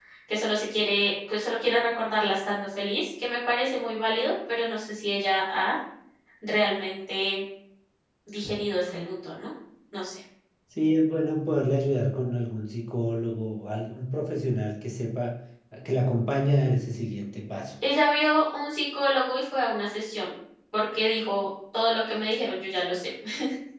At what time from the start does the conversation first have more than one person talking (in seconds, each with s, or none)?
none